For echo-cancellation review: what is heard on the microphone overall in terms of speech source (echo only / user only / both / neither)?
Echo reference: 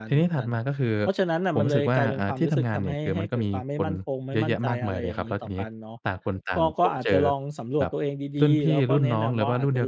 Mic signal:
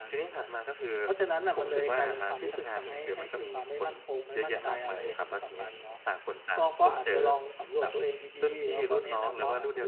echo only